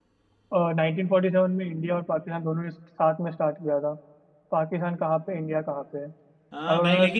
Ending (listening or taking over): taking over